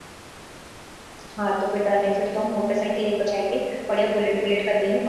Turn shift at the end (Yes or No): No